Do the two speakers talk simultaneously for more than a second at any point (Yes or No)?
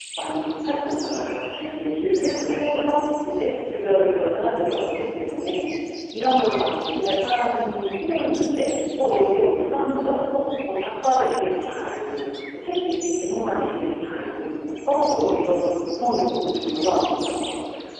Yes